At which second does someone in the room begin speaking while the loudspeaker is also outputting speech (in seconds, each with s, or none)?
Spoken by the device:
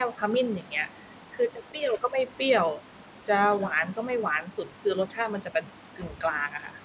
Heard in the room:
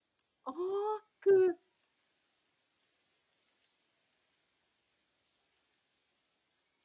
0.4 s